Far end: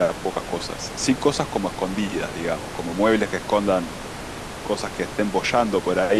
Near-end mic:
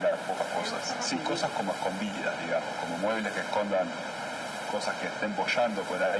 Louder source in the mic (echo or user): echo